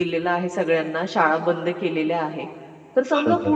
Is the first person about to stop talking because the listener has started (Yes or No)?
No